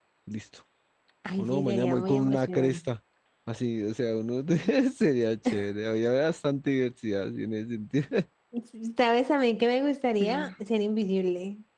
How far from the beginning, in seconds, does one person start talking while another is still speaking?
1 s

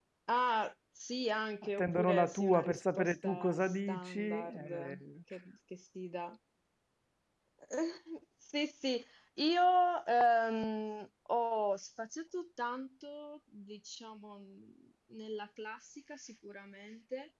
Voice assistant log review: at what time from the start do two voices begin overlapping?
2 s

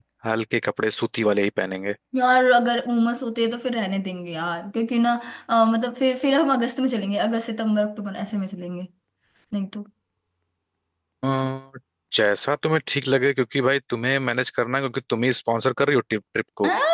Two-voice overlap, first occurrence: none

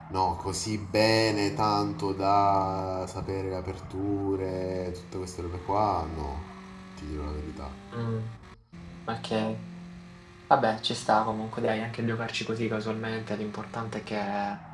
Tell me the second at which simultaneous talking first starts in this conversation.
none

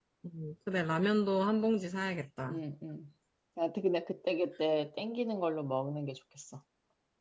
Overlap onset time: none

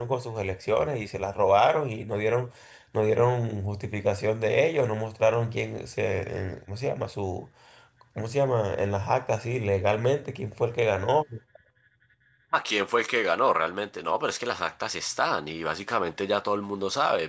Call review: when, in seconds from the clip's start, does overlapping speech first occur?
none

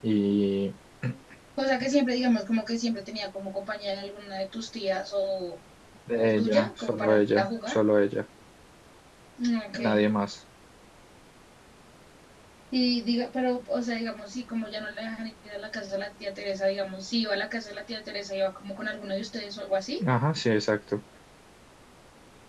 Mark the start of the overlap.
6 s

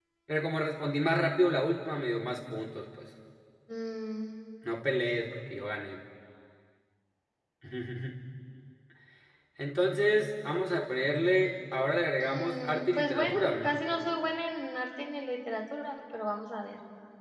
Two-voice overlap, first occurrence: 12 s

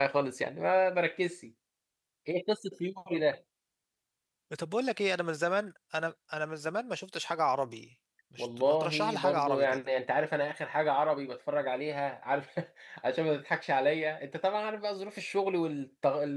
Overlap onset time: 8 s

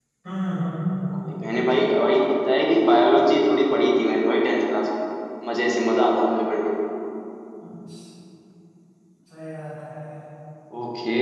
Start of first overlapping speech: none

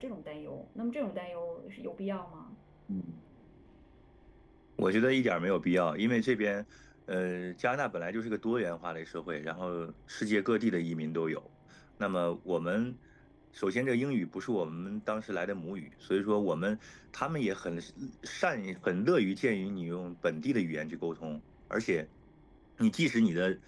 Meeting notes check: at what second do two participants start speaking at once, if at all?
none

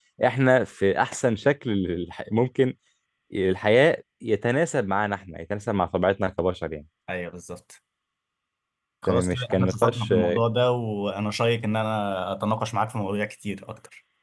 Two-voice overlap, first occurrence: 9 s

